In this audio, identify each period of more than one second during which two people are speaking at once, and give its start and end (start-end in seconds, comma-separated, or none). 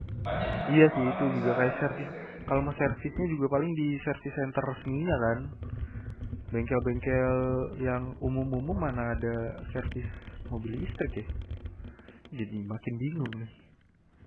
0.7-2.0